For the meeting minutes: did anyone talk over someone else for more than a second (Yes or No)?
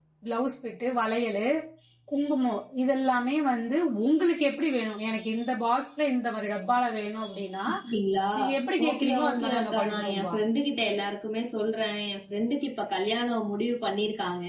Yes